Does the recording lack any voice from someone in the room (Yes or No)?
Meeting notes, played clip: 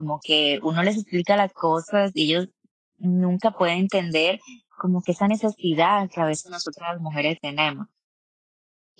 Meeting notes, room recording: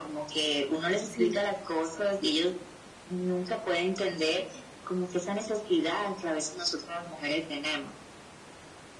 No